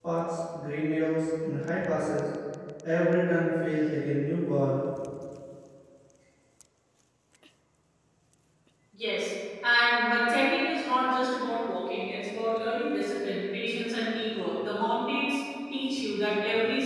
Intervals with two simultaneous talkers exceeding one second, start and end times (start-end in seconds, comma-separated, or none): none